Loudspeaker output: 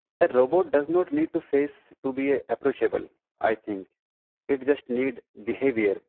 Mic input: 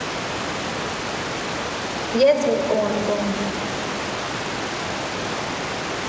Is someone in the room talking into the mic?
Yes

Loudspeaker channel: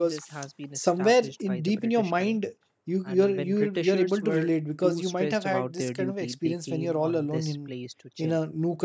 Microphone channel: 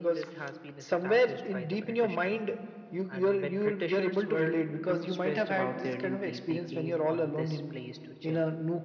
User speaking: No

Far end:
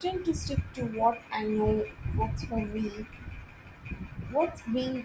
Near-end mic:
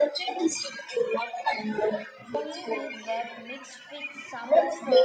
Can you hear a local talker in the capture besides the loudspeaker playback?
Yes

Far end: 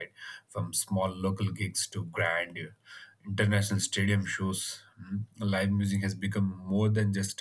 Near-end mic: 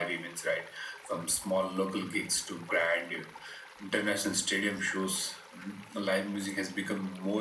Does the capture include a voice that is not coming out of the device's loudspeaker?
No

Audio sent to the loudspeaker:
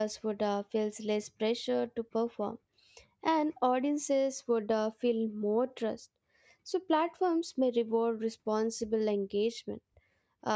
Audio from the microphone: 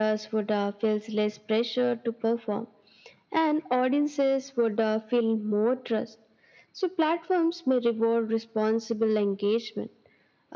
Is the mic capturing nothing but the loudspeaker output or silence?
Yes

